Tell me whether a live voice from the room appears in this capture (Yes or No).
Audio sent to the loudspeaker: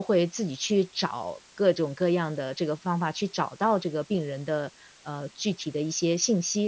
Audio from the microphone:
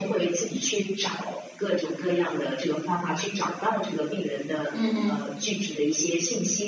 Yes